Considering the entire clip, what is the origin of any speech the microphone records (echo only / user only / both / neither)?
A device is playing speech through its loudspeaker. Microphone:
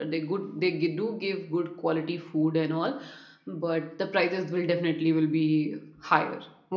user only